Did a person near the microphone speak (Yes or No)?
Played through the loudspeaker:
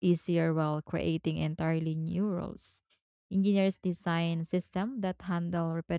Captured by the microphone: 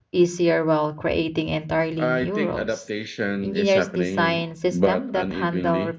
Yes